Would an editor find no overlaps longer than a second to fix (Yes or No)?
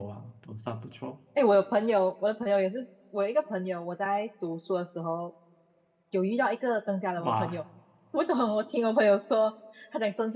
Yes